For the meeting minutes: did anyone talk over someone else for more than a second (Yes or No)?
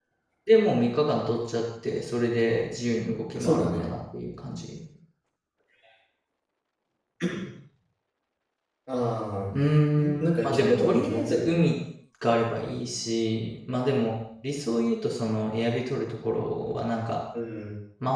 Yes